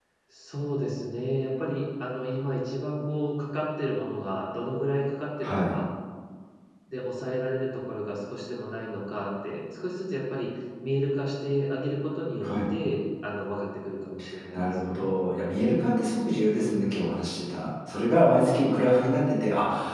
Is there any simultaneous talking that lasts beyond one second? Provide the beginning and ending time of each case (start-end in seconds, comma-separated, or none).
none